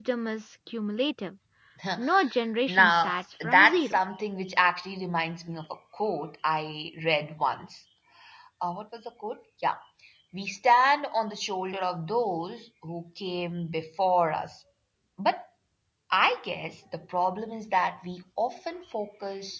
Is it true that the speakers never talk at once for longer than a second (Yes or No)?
No